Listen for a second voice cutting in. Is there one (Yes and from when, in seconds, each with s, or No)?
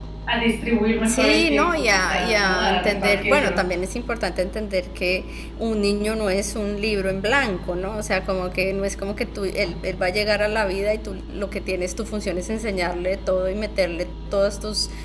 Yes, from 1.0 s